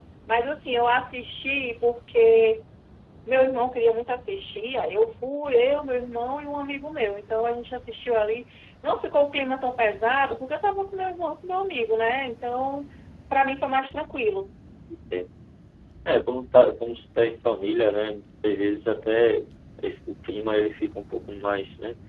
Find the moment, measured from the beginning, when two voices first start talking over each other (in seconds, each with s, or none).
none